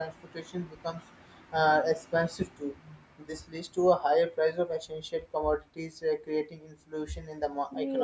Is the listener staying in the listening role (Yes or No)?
Yes